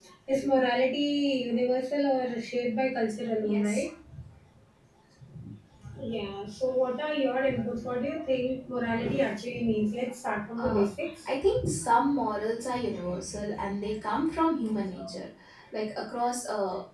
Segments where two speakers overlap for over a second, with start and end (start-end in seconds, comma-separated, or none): none